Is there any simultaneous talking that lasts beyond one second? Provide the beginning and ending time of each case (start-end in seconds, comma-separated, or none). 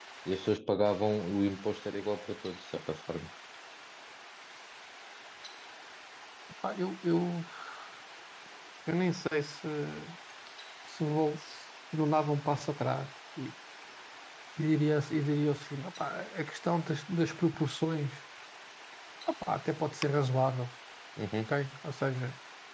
none